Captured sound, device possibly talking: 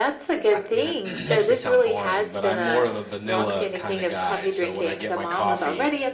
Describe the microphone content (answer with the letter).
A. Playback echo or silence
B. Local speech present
B